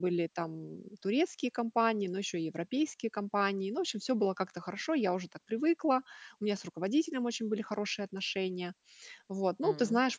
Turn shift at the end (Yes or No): No